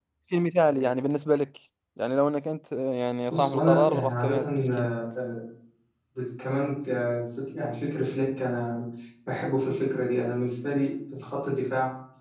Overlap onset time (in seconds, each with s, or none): 3.3 s